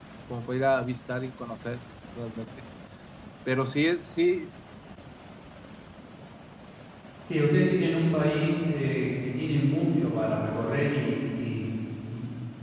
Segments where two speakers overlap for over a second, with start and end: none

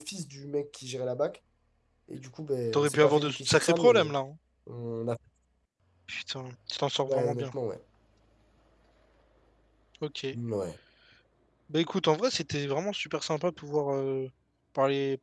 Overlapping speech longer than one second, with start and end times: 2.7-4.1

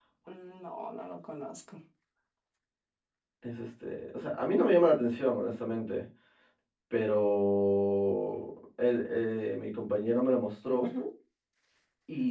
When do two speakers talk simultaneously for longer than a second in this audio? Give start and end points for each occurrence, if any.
none

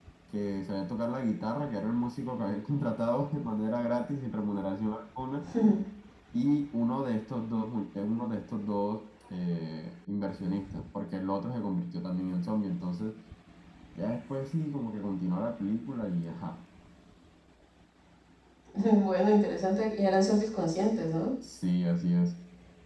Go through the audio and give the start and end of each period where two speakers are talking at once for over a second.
none

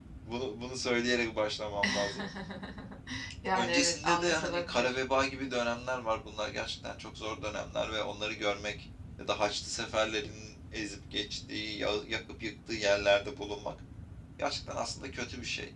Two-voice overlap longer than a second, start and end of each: 3.6-5.0

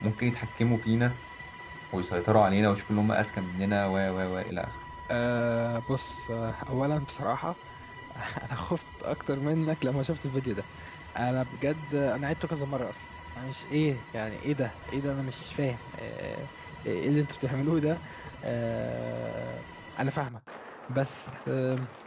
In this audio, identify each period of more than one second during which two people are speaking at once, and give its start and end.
none

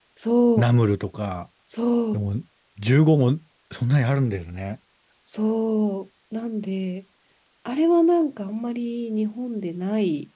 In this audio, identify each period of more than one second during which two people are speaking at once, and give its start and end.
none

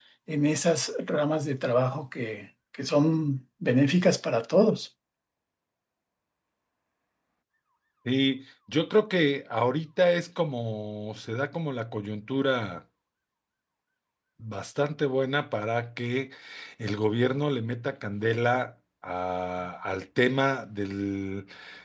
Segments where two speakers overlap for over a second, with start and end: none

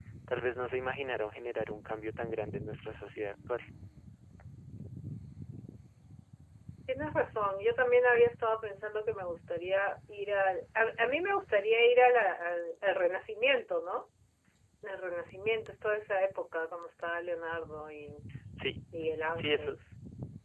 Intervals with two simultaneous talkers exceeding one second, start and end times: none

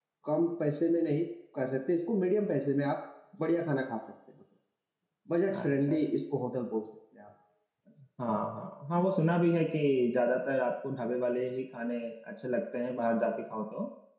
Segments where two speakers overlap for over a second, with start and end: none

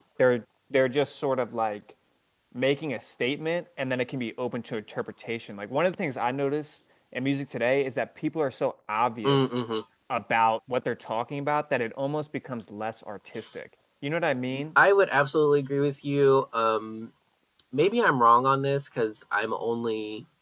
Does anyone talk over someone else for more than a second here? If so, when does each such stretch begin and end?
none

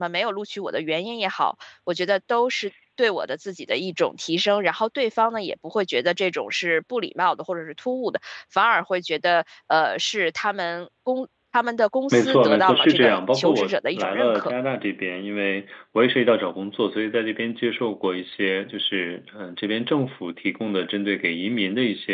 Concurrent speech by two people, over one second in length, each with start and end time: 12.1-14.5

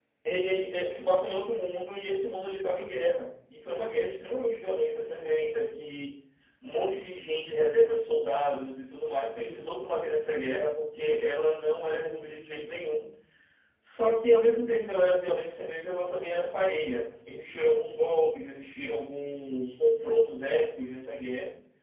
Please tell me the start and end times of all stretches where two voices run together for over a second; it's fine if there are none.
none

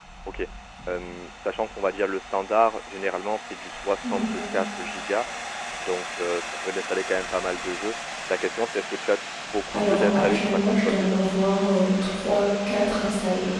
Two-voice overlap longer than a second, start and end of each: 9.7-11.2

